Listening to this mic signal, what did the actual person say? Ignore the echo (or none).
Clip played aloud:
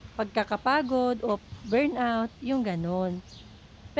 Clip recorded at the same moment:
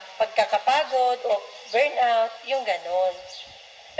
none